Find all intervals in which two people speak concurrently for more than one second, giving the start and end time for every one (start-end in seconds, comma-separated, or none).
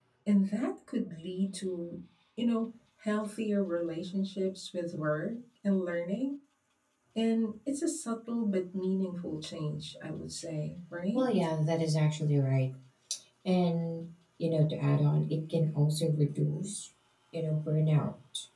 none